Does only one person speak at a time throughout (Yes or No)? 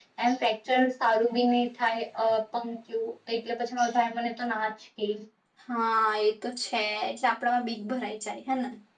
Yes